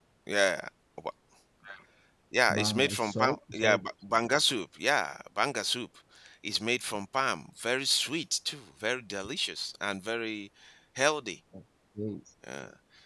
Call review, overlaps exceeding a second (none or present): present